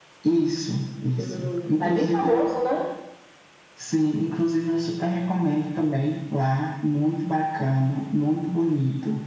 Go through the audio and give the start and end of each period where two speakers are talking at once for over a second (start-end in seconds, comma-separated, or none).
1.2-2.5